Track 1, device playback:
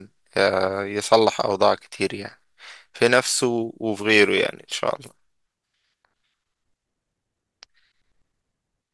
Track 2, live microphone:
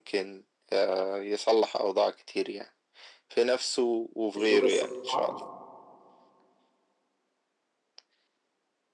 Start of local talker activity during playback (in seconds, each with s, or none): 4.4 s